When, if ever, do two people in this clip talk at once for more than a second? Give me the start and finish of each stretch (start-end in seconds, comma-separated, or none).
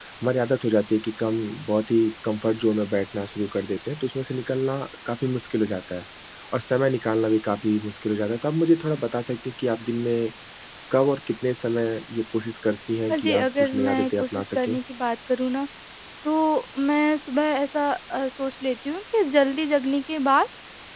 13.1-14.8